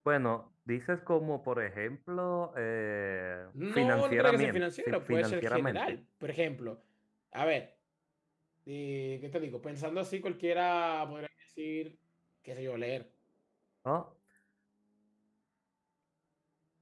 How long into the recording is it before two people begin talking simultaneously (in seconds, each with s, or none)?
3.5 s